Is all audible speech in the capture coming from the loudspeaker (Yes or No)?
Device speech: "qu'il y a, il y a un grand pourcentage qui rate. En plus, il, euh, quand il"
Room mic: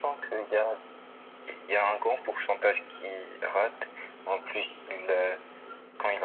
Yes